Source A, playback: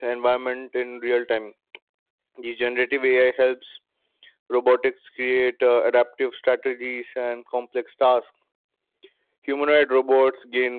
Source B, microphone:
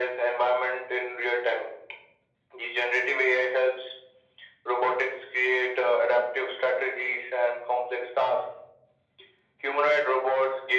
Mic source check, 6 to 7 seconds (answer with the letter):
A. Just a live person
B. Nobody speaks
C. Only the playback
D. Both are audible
C